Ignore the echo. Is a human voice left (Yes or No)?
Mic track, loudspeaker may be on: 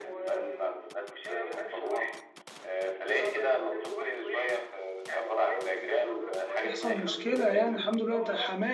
Yes